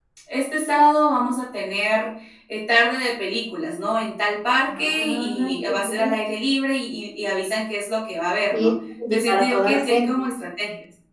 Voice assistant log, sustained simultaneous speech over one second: present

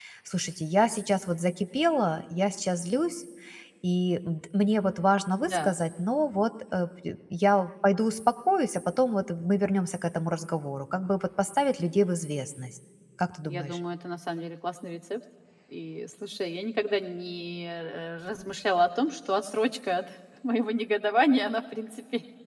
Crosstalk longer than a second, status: none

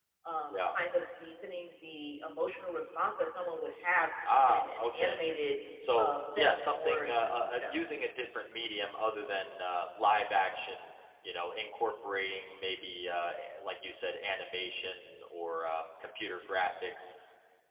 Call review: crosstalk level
present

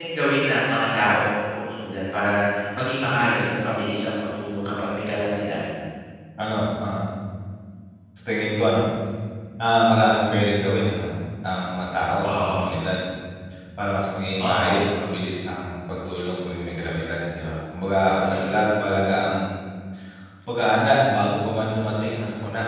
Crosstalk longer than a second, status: none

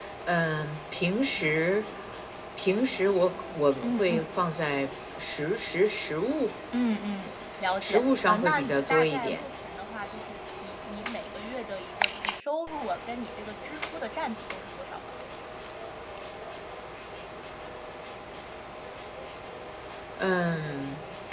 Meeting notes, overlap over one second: present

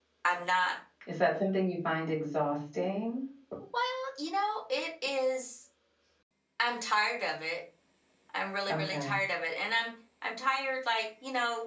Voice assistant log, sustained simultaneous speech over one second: none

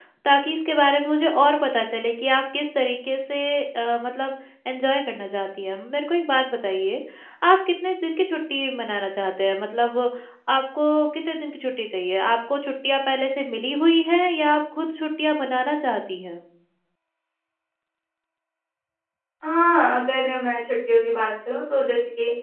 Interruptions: none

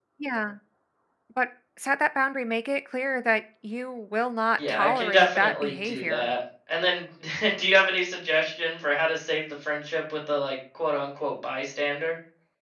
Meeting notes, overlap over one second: present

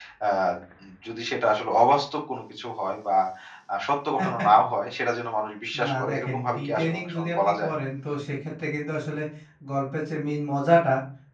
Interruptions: present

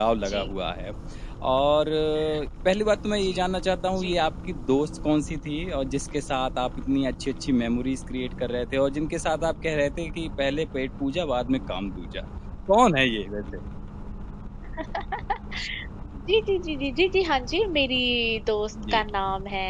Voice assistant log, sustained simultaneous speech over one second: none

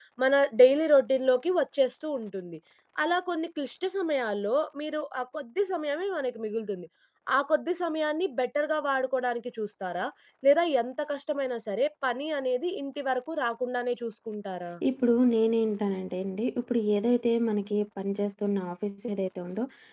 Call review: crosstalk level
none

